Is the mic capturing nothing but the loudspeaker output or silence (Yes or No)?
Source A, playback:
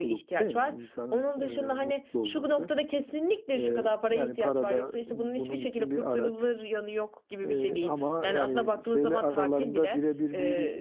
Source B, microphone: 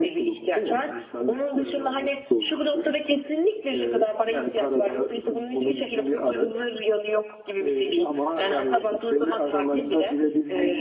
Yes